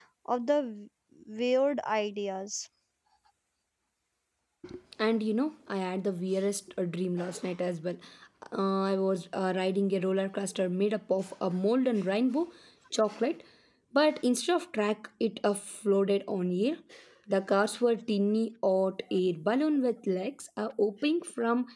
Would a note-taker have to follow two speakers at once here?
No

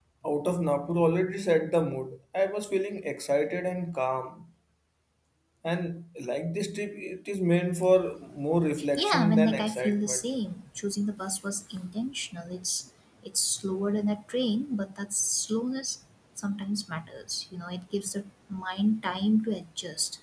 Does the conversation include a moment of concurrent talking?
Yes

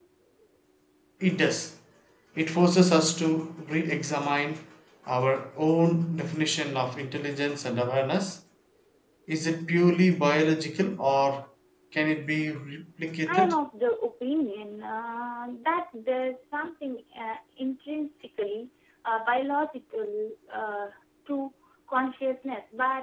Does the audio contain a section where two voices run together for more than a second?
No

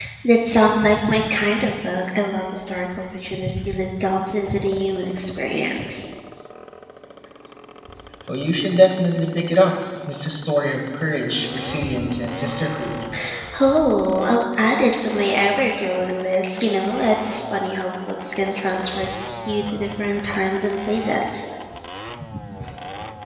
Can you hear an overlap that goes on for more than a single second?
No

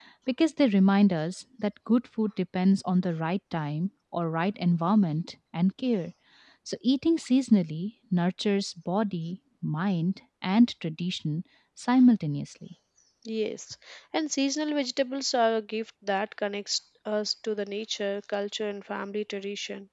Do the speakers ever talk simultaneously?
No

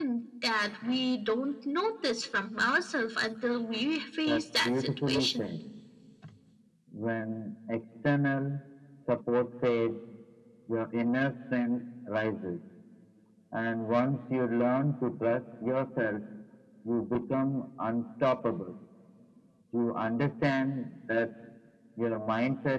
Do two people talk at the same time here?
Yes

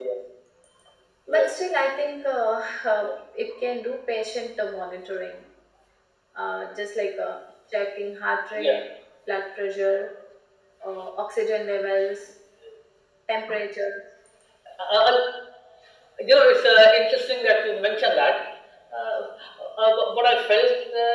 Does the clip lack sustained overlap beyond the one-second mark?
Yes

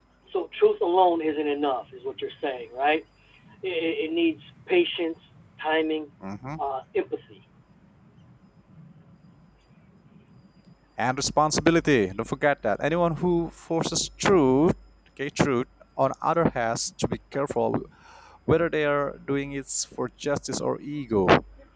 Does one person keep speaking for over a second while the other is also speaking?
No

